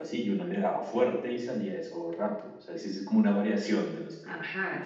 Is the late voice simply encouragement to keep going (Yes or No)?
No